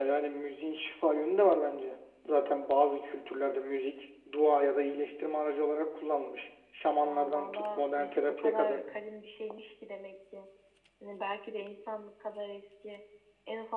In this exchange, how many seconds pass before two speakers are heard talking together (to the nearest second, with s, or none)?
7 s